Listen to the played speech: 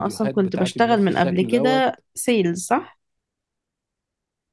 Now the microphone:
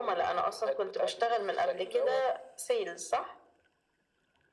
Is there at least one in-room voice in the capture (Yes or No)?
No